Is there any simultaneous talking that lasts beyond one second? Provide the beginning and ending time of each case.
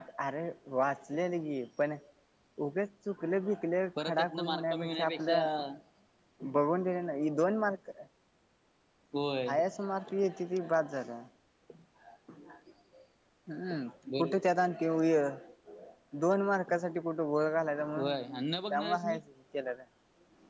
4.0-5.4, 17.9-19.2

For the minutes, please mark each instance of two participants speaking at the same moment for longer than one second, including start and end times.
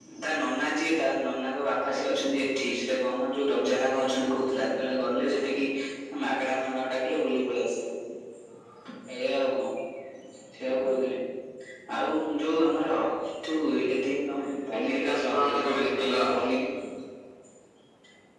14.7-16.4

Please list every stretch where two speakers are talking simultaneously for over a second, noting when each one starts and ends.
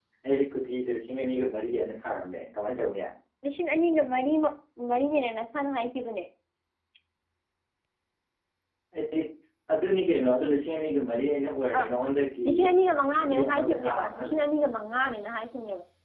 13.2-14.4

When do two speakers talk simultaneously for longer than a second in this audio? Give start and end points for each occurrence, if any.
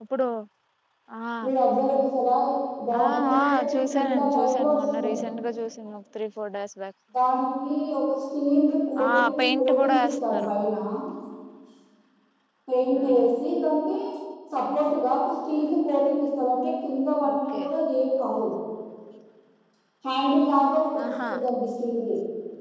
3.0-5.2, 9.1-10.5

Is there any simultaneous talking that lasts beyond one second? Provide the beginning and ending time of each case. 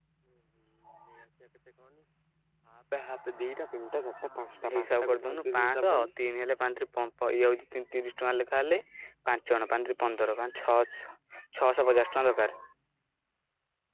4.7-6.1

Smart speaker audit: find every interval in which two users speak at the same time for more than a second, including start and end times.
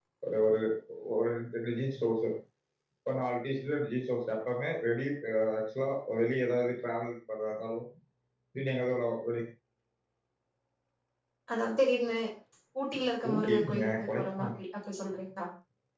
13.3-14.5

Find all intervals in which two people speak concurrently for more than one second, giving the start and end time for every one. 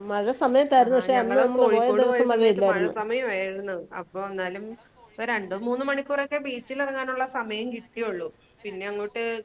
0.8-2.9

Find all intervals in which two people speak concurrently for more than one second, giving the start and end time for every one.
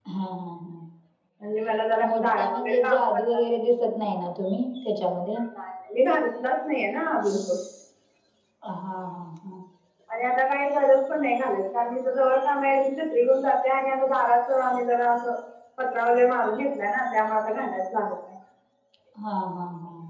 2.1-3.4

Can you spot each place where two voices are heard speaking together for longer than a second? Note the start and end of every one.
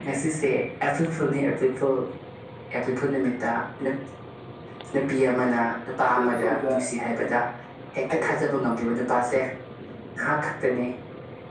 6.0-7.4

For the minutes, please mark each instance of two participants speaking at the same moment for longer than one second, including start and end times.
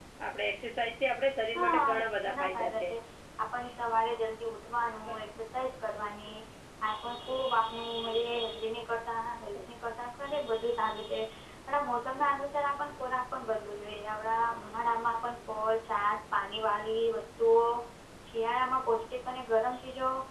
1.6-2.9

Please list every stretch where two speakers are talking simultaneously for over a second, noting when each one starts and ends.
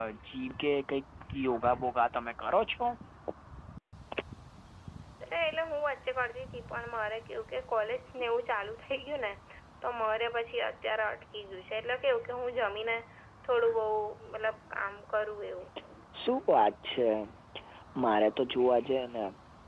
none

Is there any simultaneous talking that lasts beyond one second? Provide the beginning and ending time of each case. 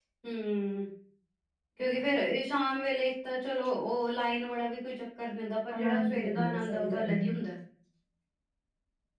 5.7-7.3

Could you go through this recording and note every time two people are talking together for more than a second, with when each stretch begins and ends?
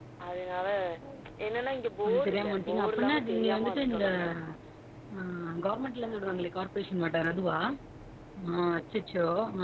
2.1-4.0

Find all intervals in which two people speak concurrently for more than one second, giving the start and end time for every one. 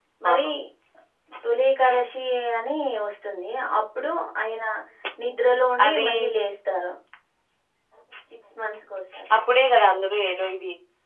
none

